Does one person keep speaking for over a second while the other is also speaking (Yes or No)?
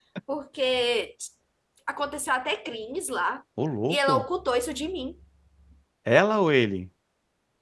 No